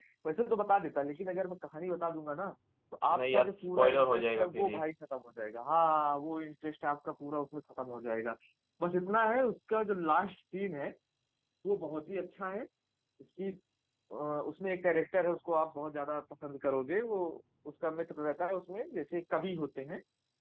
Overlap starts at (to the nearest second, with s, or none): 3 s